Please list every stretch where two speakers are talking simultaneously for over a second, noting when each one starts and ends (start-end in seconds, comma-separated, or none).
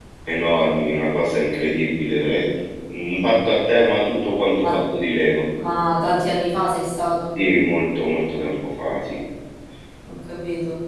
none